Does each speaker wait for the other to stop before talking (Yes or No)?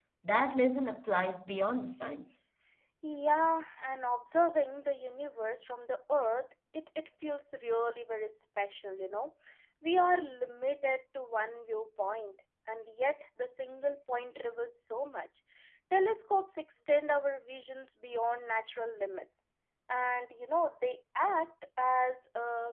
Yes